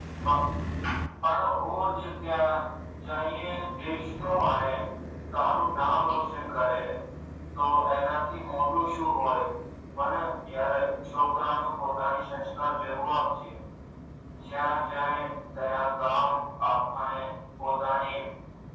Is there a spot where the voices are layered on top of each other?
No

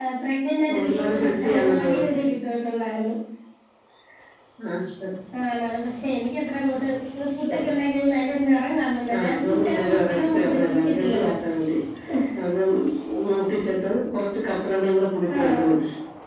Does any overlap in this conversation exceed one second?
Yes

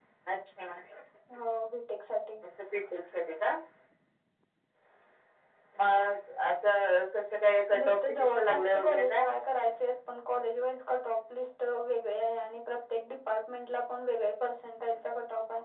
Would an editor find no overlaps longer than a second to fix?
No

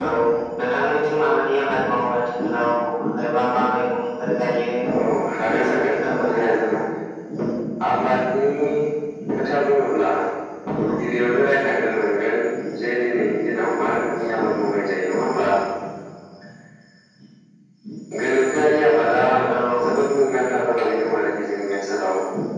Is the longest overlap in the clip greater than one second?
Yes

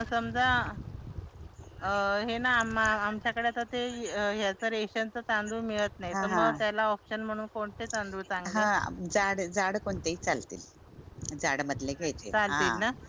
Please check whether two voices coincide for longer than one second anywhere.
No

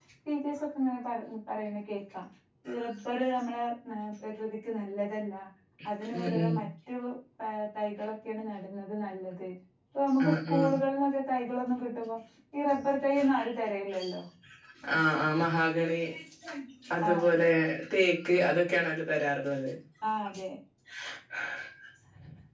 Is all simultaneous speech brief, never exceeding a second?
Yes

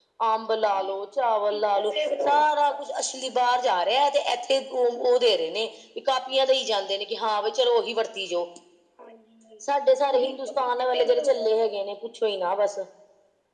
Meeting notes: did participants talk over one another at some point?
Yes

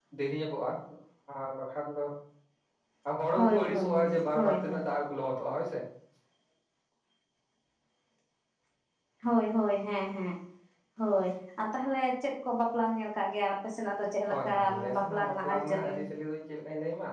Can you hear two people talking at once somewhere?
Yes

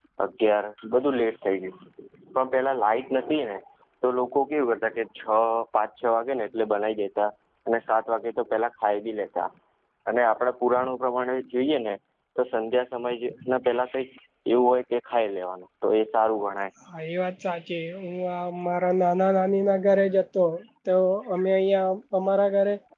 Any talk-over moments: No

